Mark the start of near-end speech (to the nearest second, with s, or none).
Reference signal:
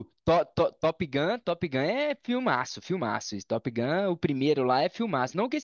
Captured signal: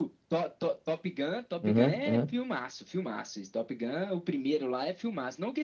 2 s